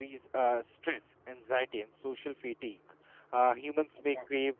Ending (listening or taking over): listening